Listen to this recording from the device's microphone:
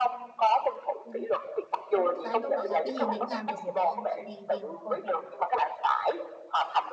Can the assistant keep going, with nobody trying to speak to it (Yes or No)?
No